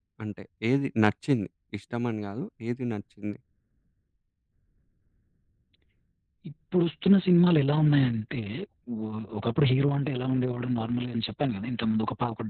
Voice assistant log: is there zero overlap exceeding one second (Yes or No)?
Yes